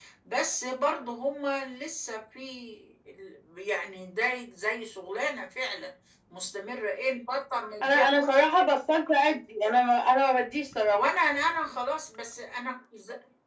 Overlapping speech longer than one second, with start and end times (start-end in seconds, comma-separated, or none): none